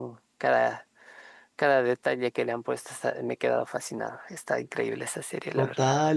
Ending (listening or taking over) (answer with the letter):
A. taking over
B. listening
A